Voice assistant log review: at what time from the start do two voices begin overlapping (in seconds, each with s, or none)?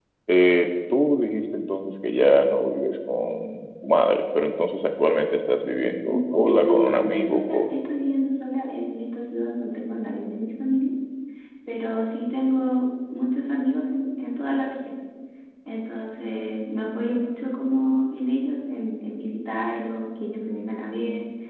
6.5 s